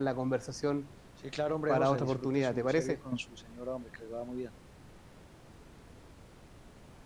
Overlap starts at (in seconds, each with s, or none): 1.7 s